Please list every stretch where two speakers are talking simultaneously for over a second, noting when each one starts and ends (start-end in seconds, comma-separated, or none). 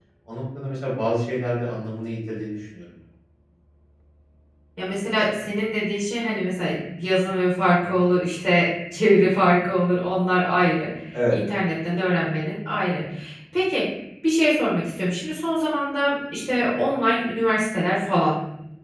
none